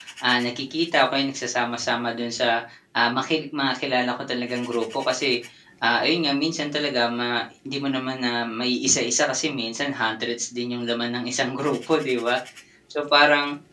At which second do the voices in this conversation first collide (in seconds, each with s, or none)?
none